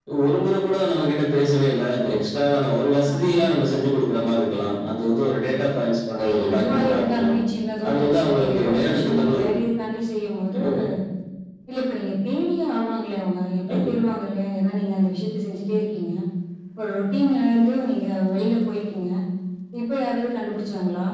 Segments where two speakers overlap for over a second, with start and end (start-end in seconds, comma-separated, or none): 6.2-7.4, 7.9-9.4